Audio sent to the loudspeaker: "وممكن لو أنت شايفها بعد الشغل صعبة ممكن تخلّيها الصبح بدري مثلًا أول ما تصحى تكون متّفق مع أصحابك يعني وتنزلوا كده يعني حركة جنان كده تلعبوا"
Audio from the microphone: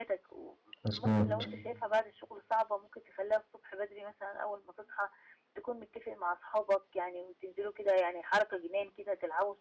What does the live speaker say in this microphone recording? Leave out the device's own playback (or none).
مضبوط.